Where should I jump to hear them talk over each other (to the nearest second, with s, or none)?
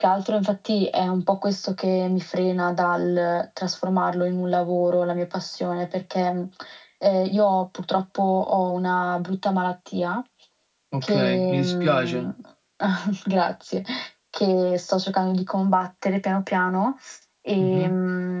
11 s